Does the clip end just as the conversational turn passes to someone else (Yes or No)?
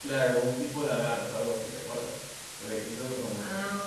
Yes